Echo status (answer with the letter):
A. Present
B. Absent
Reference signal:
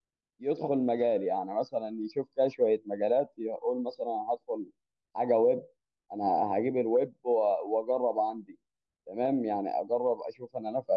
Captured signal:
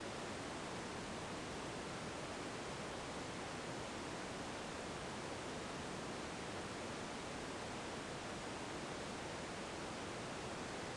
B